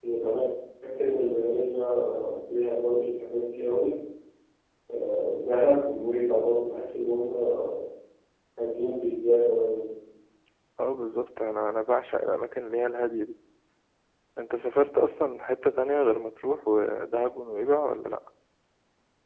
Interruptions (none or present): none